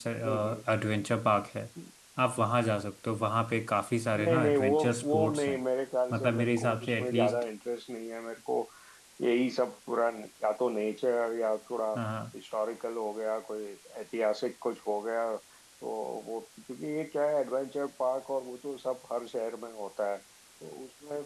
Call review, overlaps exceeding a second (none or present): present